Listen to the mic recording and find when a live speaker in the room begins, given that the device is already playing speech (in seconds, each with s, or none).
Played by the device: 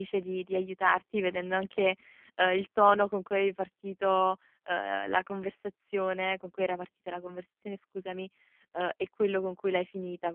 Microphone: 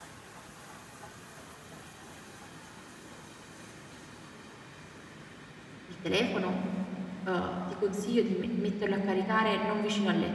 5.8 s